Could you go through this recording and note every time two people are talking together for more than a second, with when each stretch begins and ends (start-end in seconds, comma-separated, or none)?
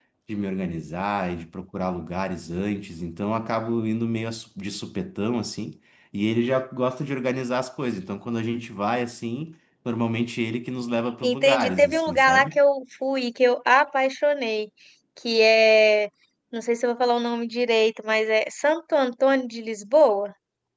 11.2-12.5